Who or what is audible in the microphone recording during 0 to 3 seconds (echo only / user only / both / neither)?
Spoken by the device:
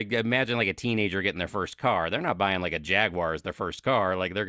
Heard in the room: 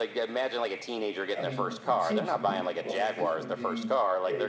both